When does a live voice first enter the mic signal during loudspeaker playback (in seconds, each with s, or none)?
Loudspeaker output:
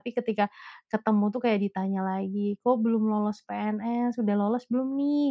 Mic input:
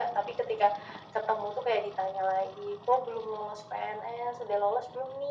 none